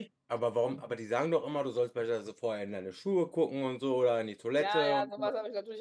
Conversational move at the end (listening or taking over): taking over